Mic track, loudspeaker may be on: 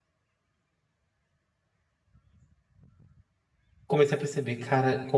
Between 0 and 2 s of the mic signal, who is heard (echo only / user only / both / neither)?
neither